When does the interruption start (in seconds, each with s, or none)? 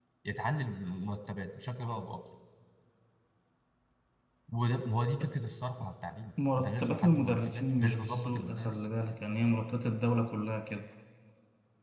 6.4 s